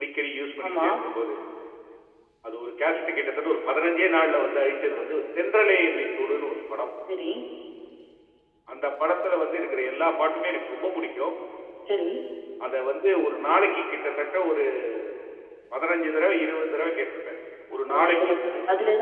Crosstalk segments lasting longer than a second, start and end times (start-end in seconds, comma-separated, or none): none